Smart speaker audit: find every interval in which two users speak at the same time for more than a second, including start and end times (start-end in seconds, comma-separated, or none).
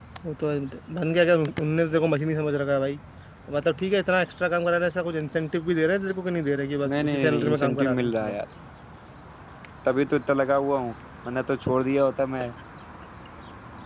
6.9-8.3